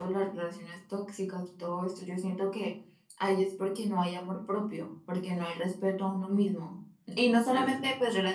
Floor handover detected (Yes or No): No